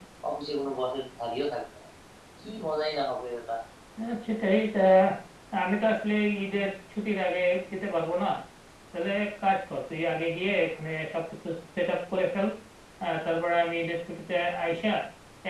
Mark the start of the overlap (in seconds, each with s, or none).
none